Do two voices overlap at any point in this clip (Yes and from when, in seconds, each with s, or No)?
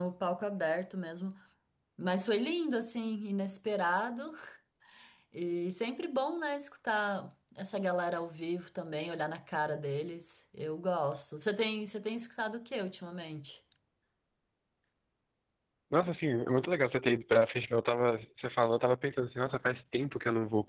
No